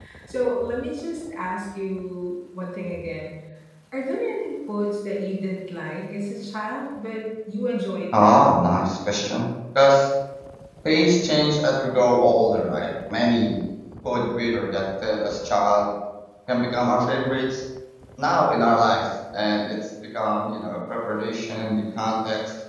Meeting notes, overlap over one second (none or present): none